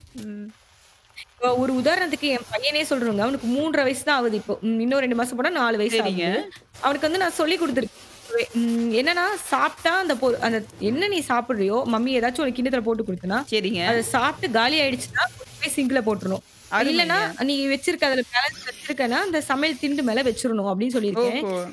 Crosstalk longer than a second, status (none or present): none